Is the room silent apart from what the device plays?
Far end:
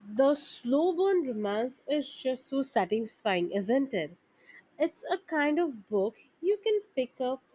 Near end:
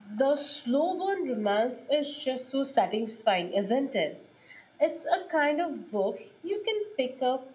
Yes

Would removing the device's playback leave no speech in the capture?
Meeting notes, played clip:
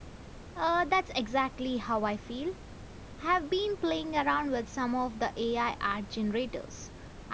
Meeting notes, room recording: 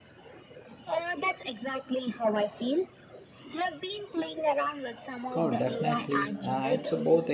No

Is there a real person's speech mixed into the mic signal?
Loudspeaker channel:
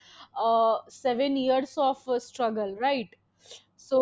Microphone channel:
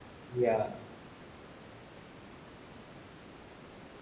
Yes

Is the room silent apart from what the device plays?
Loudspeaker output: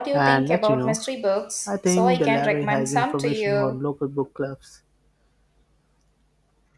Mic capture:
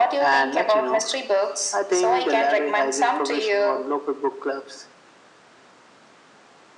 Yes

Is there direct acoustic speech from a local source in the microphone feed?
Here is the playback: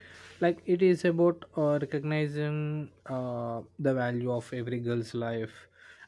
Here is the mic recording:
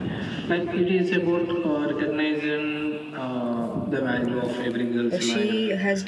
Yes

